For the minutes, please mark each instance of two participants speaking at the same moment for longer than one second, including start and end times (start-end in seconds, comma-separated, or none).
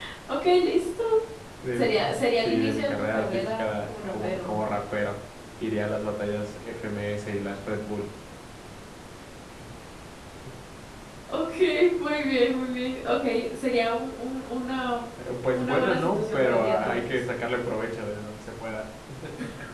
2.4-4.5, 15.5-17.2